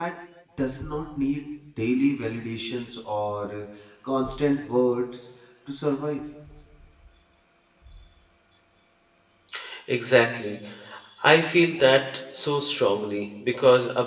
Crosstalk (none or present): none